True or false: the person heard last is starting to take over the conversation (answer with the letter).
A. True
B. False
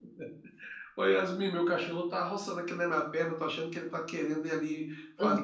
B